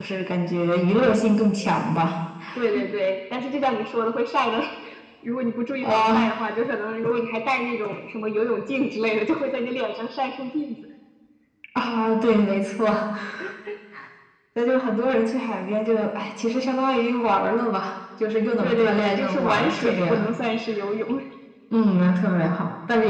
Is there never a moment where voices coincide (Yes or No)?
No